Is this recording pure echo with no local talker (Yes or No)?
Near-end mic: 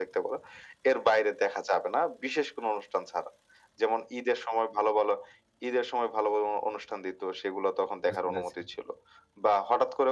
No